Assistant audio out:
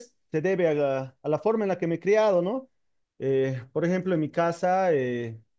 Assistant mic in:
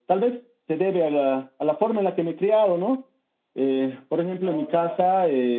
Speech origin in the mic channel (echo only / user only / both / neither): both